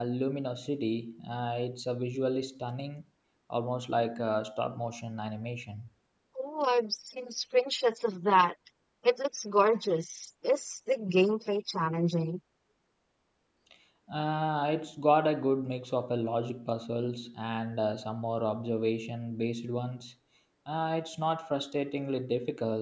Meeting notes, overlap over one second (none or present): none